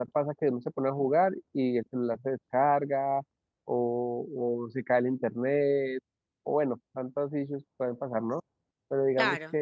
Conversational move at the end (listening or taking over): listening